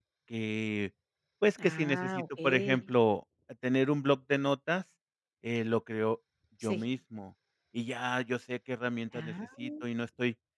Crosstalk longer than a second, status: present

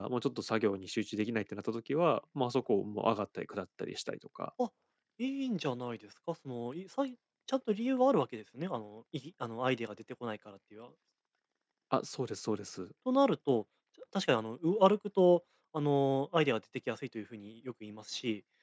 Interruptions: none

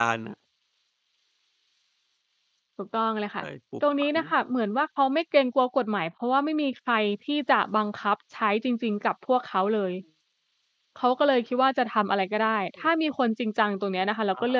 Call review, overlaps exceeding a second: none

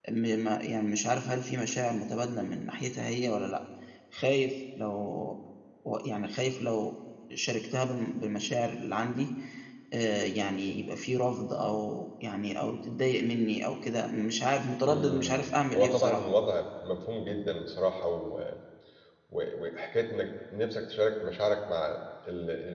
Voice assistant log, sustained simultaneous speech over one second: present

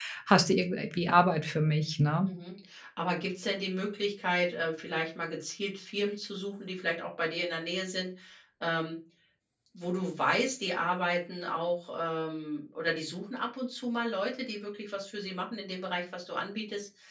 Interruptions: none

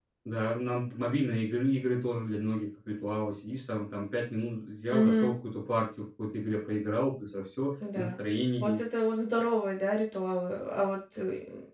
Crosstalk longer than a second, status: none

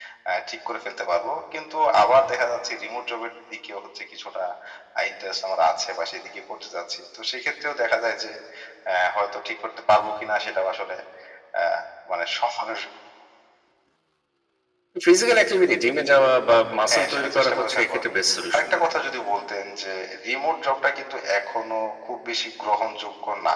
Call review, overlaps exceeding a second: present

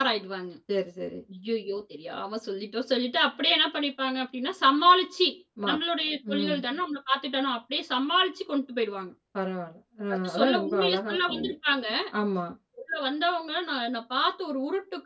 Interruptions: present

